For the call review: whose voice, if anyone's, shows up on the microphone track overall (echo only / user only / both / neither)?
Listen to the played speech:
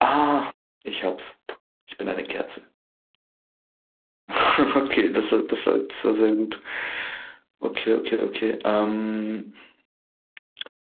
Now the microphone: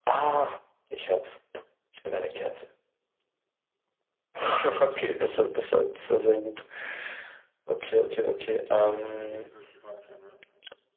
both